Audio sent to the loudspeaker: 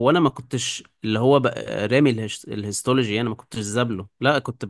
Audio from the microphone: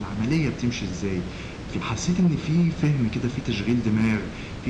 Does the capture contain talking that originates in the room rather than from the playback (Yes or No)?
Yes